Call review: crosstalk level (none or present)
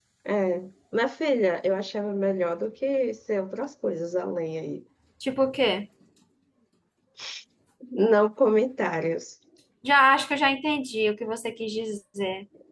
none